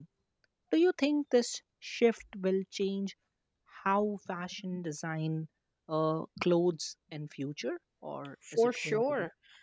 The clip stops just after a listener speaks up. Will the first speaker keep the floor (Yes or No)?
No